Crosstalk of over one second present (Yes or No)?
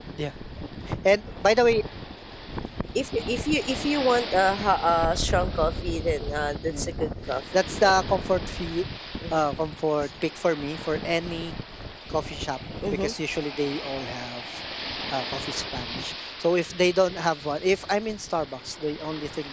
No